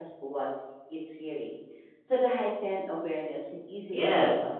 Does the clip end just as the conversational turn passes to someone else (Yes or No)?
Yes